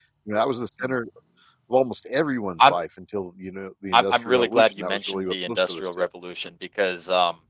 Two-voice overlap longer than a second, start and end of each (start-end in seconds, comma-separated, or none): 3.9-5.9